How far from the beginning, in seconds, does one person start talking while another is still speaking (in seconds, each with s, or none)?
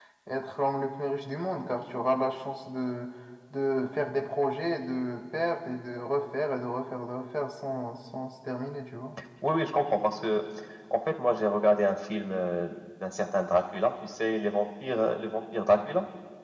none